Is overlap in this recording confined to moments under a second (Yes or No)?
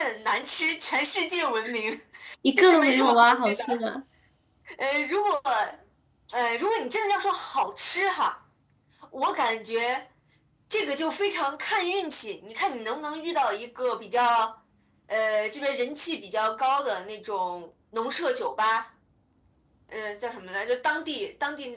No